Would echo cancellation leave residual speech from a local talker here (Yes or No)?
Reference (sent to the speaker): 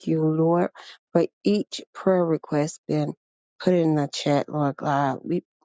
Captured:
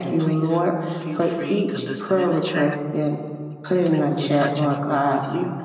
Yes